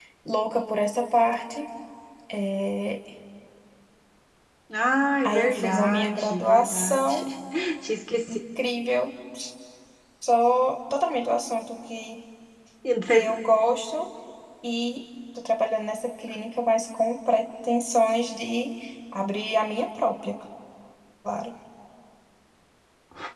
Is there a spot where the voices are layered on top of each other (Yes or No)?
Yes